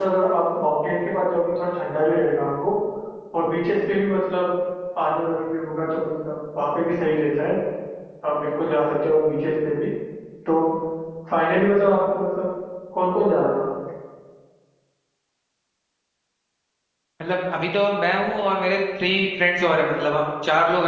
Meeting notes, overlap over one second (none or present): none